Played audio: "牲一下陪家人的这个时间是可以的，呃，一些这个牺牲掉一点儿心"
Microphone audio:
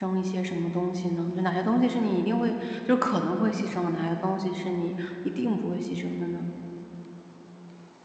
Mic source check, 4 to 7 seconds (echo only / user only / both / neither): user only